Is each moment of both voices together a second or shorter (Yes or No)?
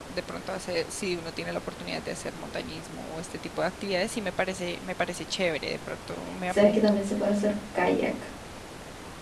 Yes